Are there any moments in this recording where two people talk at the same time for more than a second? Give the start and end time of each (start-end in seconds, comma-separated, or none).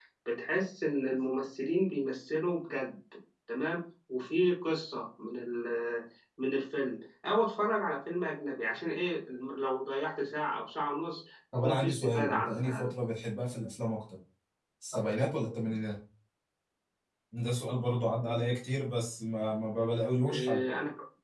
11.6-12.9